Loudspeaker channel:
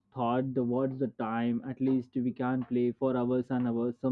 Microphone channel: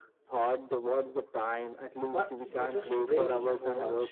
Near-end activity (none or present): present